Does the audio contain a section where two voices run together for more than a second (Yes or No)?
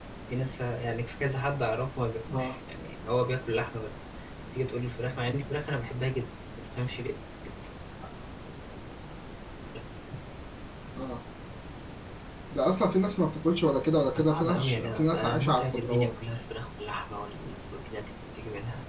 Yes